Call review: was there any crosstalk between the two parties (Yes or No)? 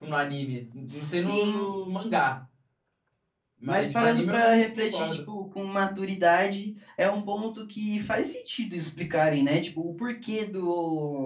Yes